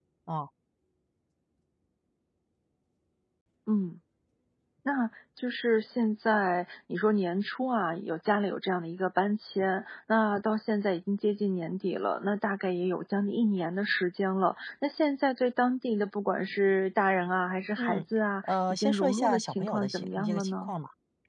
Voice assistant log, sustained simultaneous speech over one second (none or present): present